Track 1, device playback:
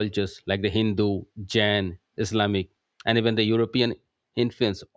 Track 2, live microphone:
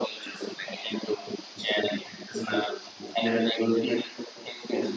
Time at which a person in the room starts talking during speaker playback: none

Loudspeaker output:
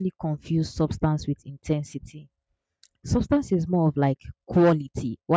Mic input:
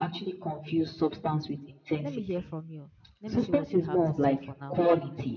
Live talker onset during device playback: 2.0 s

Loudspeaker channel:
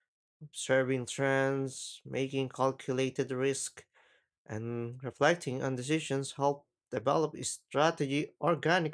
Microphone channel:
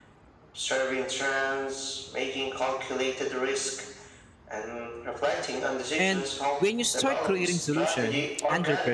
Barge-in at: 6.0 s

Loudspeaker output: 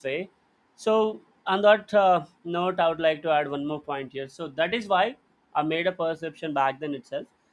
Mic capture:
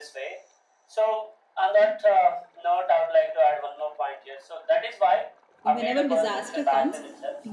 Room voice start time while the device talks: 5.6 s

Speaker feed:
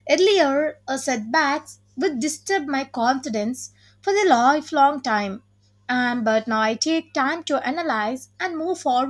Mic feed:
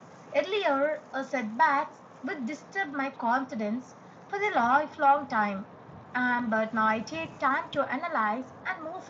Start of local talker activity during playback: none

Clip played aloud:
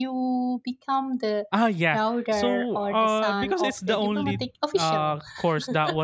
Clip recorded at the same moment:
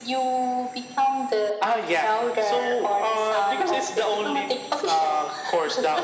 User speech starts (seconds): none

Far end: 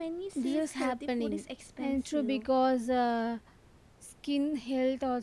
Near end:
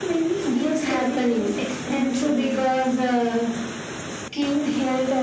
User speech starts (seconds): none

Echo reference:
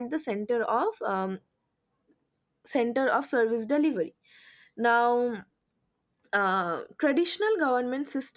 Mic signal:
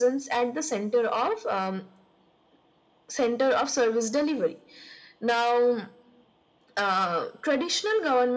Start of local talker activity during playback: none

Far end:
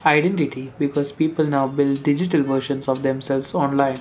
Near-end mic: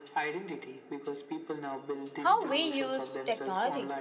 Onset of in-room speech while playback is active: 2.2 s

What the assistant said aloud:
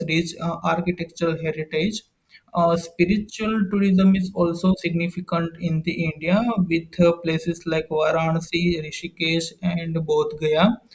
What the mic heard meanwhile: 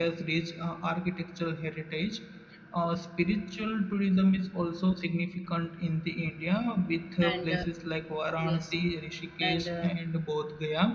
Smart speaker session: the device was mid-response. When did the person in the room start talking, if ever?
7.2 s

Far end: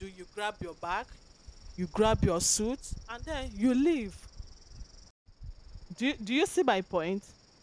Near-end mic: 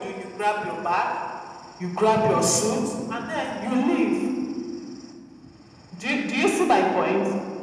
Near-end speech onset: none

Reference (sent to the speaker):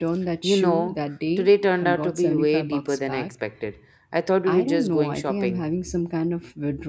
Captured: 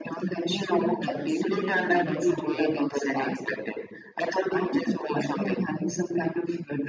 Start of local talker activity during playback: 0.7 s

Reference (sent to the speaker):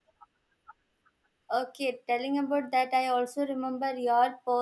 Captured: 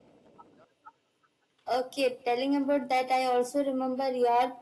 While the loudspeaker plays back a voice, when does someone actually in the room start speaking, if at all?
none

